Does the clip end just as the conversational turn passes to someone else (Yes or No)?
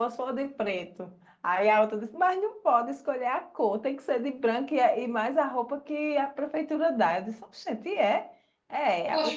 Yes